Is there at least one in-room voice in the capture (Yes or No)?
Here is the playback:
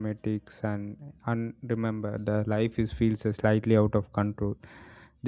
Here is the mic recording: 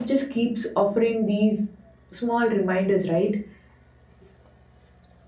Yes